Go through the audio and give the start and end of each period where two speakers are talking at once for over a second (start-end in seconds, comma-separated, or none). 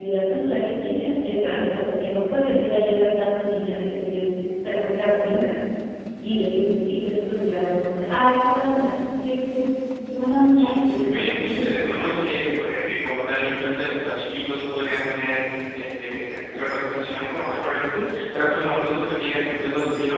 10.5-12.2